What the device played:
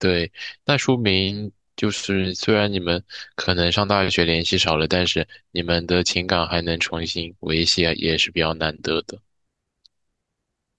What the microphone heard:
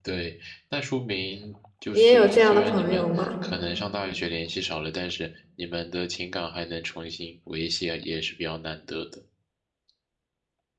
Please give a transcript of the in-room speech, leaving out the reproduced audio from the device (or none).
你也有这样的朋友吗？